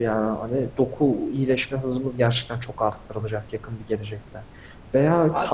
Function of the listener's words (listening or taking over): listening